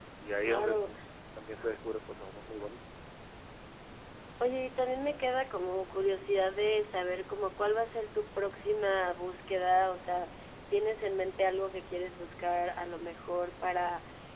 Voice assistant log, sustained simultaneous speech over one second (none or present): none